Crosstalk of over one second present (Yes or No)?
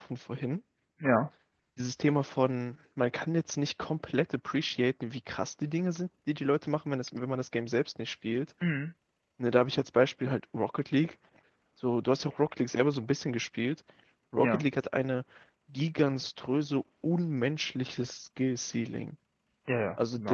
No